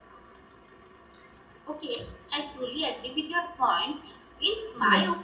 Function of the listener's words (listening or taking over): listening